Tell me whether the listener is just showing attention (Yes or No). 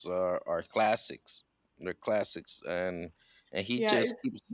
No